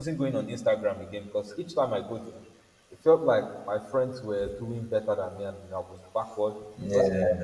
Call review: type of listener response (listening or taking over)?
listening